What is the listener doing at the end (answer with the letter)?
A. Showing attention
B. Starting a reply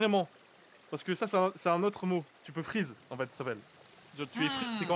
A